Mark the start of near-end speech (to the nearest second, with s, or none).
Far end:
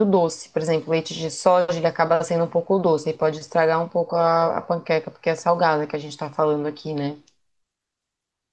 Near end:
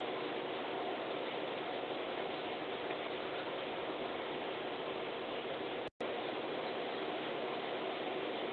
none